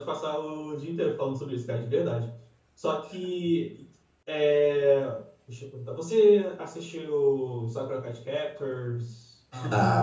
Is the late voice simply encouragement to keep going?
No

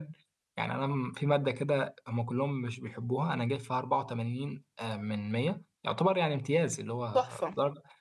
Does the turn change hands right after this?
No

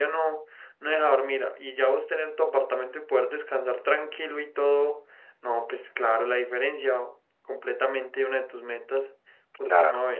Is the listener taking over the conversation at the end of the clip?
Yes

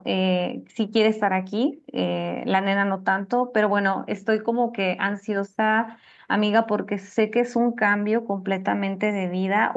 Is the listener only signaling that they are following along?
Yes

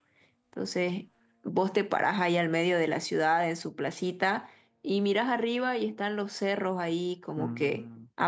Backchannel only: Yes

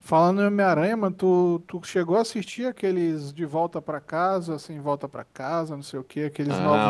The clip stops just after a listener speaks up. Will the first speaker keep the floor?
No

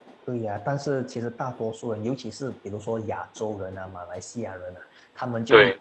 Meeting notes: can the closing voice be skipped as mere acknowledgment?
Yes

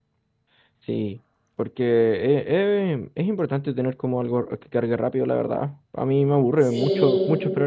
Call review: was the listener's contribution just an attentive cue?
Yes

